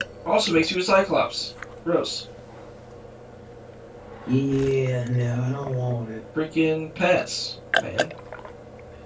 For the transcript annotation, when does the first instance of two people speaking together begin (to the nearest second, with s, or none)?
none